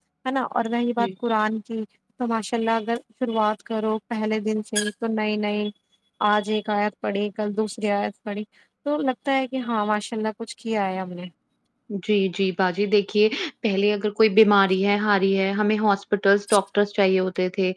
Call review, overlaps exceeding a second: none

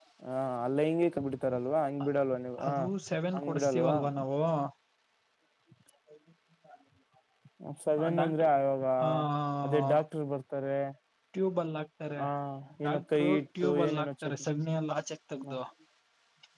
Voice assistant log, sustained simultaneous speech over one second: present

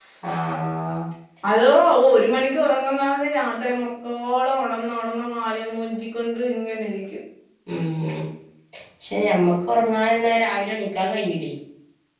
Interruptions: none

